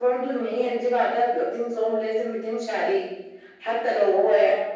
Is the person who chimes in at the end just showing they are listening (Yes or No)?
Yes